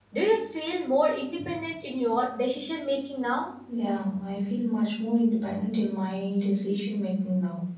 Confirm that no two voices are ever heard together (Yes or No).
Yes